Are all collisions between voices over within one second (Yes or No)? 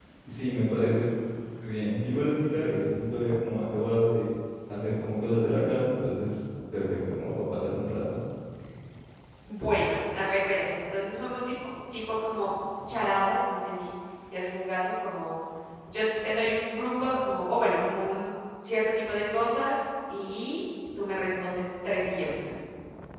Yes